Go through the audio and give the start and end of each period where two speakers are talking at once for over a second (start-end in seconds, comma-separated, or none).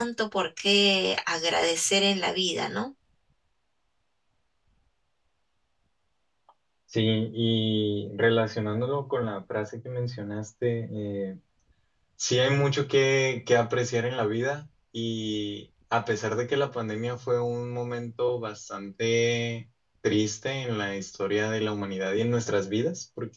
none